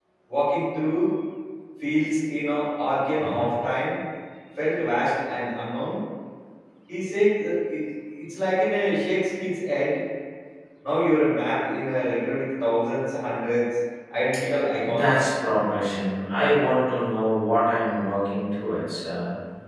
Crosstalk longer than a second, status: none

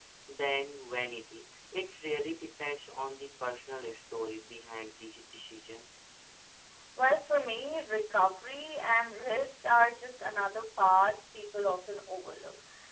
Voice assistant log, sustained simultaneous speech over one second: none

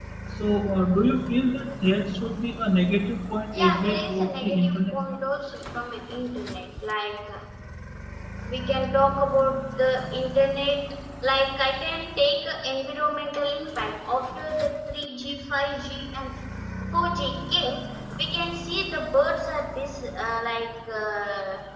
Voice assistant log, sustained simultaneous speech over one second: present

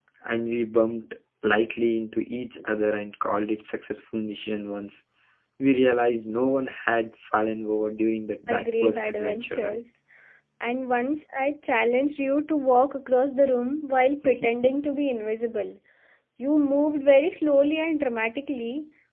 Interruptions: present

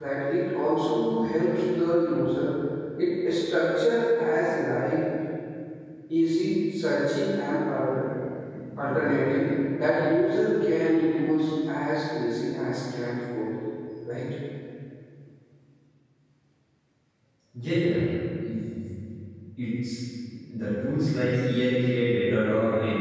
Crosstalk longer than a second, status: none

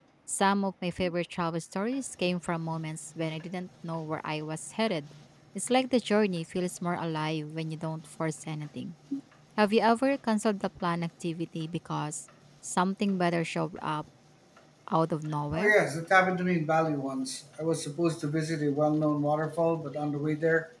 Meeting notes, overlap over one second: none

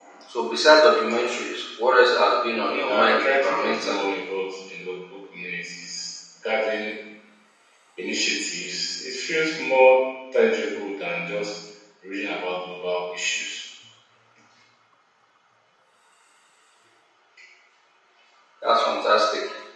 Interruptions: present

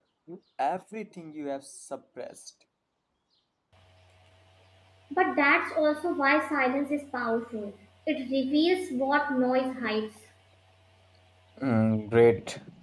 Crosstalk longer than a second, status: none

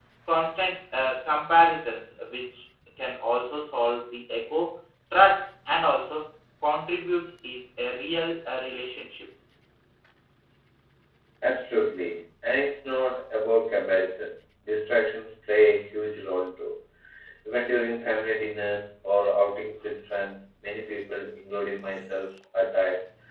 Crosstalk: none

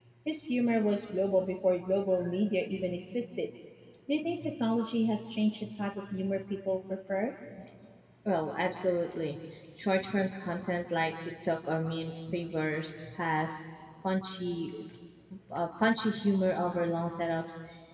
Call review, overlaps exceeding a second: none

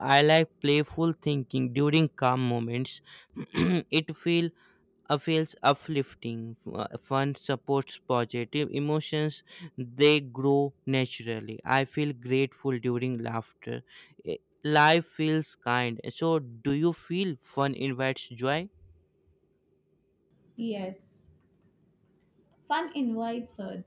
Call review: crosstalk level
none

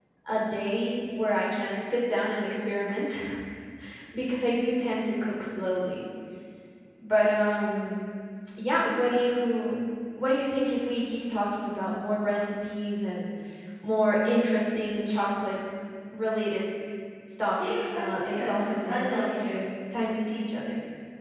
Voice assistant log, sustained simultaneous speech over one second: present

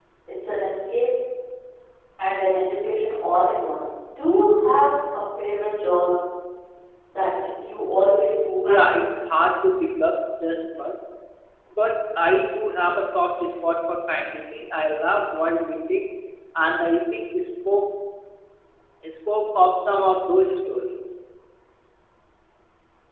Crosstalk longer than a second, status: none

